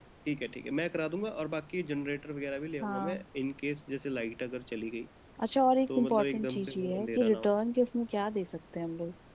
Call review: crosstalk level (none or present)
present